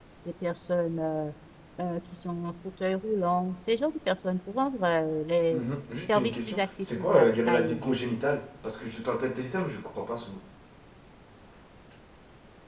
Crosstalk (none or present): present